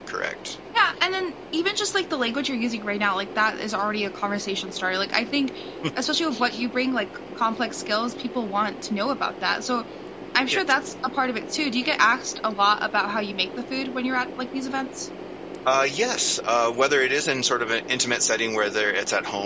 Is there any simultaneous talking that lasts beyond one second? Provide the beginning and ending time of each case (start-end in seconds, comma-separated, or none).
none